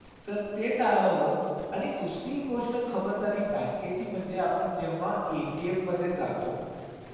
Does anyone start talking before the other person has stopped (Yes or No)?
No